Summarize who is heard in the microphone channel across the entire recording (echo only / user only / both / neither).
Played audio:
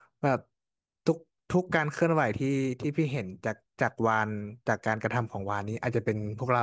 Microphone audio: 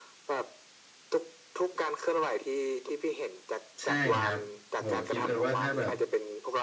both